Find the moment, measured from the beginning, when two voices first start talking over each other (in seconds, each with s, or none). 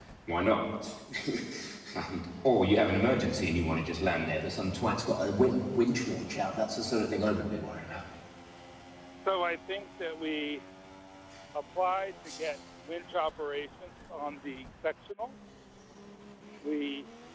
none